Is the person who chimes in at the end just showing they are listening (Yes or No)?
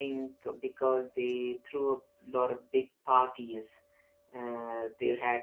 Yes